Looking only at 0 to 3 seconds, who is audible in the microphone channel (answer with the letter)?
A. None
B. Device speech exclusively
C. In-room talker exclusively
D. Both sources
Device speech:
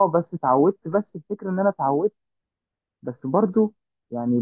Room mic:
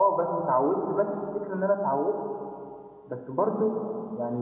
B